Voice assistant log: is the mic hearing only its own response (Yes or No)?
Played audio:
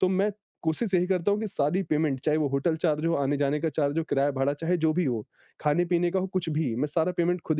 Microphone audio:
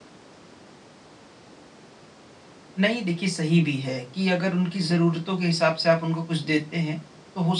No